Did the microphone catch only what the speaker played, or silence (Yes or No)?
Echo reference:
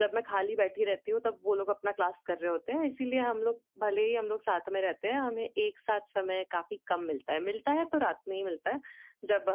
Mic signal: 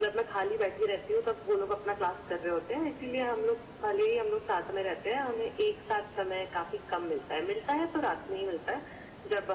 Yes